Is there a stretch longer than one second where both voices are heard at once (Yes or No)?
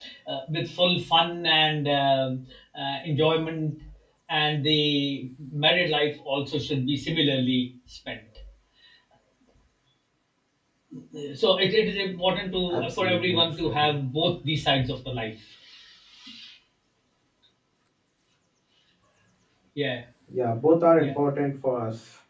Yes